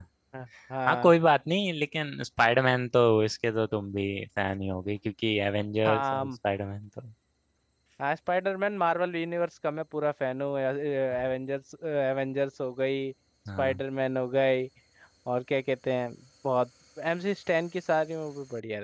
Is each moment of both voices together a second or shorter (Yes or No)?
Yes